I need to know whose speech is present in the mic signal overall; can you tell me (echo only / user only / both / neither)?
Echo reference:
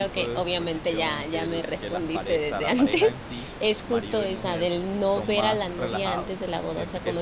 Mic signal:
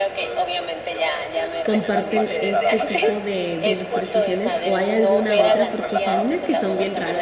both